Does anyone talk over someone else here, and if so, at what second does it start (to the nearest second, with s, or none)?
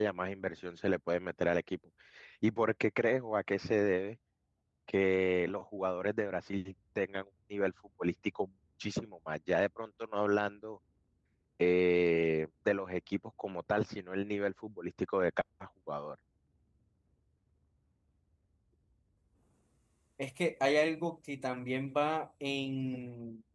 none